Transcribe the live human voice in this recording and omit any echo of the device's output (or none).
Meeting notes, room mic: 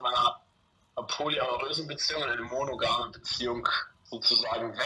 none